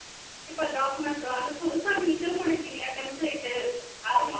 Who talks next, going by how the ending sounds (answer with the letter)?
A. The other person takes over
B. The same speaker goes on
B